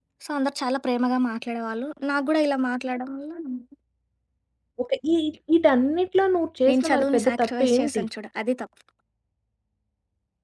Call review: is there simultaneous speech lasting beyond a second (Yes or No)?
Yes